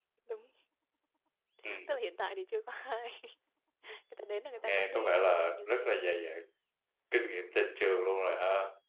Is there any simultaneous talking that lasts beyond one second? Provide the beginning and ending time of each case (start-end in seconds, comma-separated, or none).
4.6-5.9